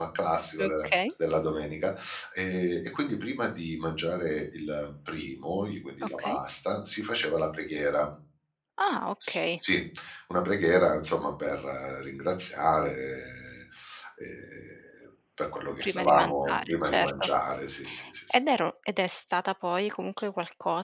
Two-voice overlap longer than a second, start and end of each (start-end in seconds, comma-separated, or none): 15.8-17.3